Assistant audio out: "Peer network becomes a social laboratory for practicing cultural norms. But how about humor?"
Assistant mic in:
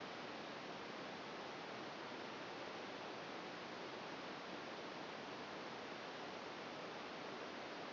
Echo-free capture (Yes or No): Yes